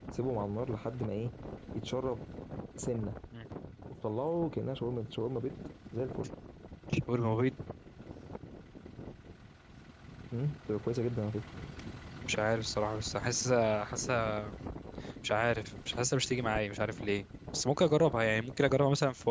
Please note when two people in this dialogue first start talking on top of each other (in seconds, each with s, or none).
none